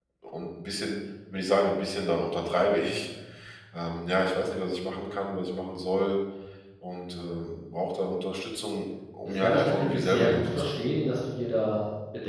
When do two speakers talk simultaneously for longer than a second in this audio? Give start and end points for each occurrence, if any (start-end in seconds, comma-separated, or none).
9.2-10.7